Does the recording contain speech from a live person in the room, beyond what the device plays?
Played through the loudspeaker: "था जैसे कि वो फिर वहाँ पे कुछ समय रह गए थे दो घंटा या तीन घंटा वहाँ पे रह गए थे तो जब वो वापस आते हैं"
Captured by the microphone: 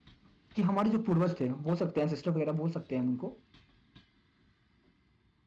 Yes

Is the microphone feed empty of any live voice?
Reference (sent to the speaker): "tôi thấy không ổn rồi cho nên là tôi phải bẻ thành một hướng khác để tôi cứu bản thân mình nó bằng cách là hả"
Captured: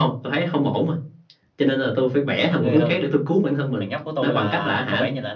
No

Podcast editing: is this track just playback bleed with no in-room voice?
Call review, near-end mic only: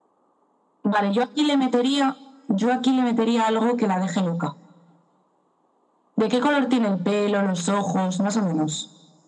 Yes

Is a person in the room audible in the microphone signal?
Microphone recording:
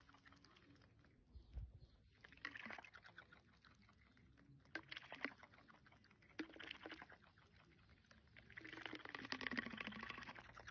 No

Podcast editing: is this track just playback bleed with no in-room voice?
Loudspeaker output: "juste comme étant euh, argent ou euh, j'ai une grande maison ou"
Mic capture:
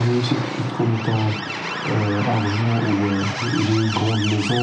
Yes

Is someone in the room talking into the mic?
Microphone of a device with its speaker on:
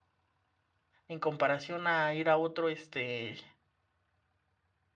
Yes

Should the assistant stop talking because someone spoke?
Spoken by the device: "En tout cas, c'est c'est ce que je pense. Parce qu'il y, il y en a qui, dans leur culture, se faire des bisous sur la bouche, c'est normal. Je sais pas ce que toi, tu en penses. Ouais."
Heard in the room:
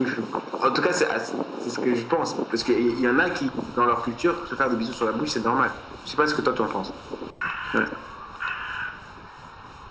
No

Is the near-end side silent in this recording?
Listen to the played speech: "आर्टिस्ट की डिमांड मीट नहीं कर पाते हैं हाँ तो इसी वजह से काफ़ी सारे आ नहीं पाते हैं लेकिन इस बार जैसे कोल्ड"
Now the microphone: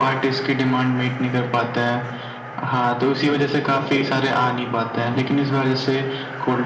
Yes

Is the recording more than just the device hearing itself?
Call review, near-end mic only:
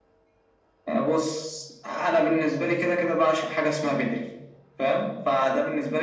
No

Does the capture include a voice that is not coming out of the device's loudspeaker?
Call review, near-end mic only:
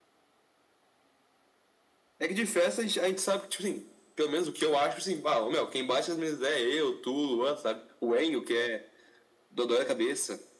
No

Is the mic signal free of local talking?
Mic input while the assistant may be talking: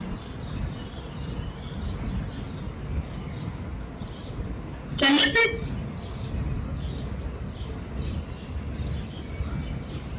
No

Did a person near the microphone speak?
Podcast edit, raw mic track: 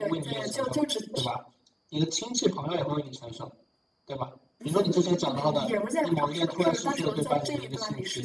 Yes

